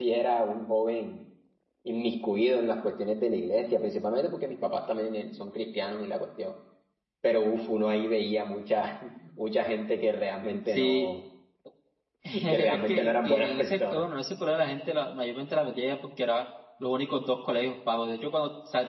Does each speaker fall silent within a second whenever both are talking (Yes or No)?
No